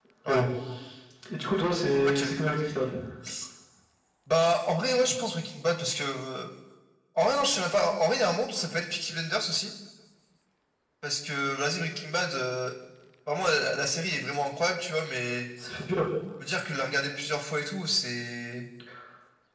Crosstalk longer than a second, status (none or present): none